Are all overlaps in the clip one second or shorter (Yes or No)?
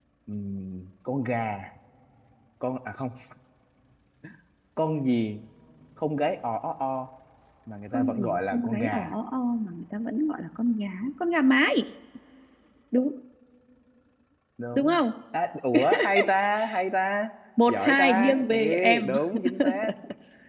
No